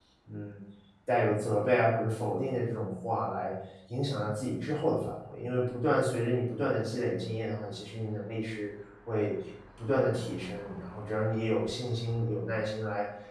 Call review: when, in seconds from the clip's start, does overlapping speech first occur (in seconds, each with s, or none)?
none